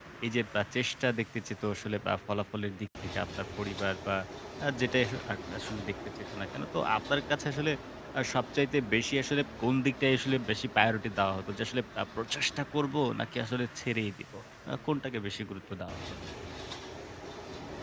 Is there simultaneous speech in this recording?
No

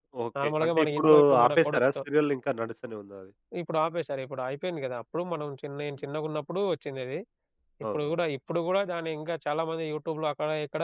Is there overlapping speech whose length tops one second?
Yes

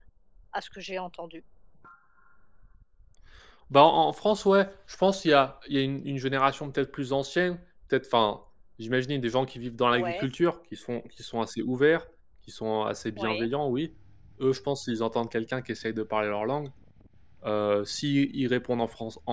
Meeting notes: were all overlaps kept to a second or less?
Yes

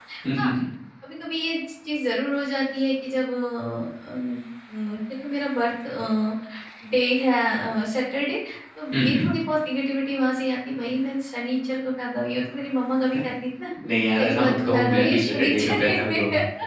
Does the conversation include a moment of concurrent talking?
Yes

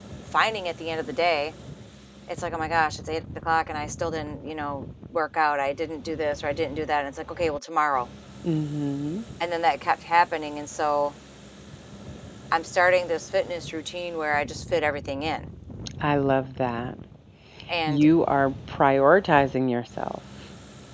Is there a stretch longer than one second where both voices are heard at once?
No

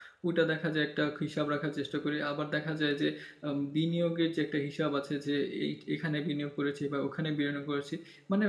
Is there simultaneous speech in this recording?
No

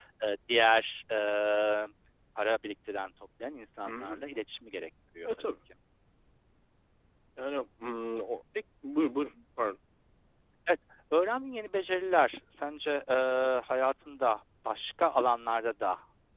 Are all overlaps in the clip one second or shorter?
Yes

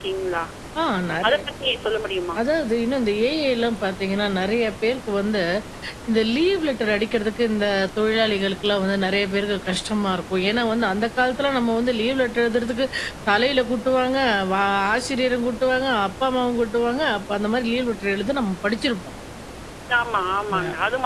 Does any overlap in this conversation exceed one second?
No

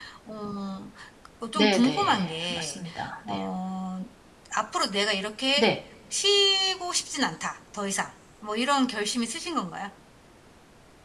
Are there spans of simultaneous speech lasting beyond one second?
Yes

